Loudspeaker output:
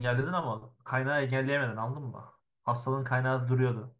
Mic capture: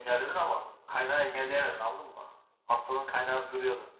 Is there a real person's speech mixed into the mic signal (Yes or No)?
No